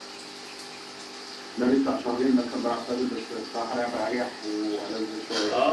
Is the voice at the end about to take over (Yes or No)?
Yes